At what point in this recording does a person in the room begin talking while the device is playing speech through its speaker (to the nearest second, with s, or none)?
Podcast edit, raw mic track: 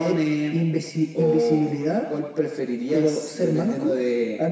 none